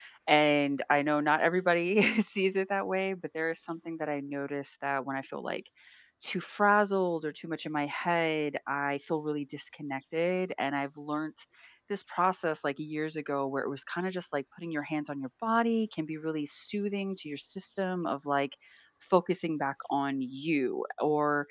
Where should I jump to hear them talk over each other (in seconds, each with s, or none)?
none